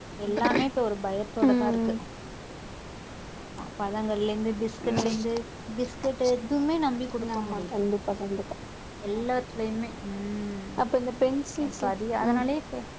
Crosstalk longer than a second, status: none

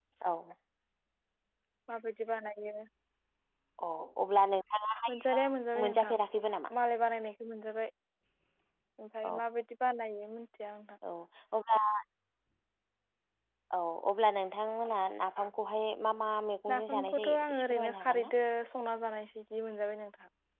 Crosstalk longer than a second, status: present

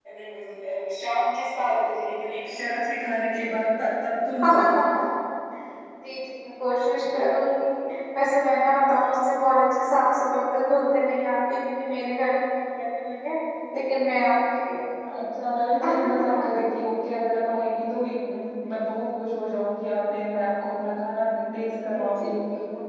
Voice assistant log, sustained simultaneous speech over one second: none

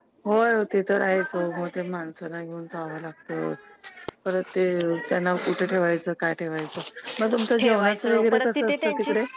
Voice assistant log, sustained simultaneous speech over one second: present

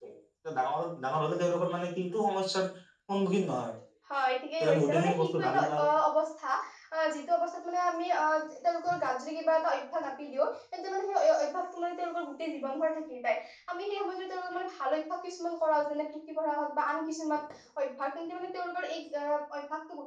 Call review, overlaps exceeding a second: present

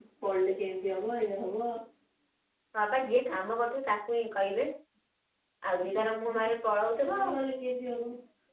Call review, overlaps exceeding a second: none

